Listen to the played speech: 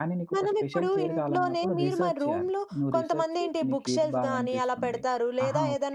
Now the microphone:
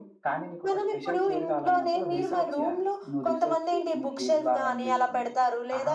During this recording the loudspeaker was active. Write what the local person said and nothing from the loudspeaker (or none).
none